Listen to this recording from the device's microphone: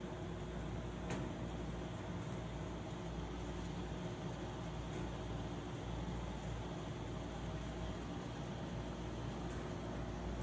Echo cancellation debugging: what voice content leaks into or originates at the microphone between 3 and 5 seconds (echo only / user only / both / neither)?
neither